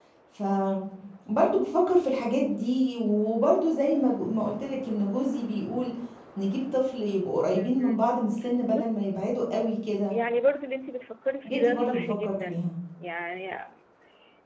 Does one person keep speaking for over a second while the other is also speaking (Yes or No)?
Yes